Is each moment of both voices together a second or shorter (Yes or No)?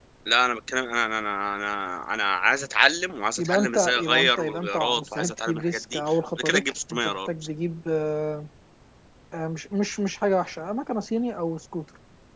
No